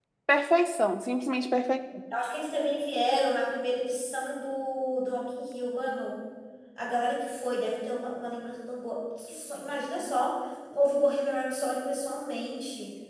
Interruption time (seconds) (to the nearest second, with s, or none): none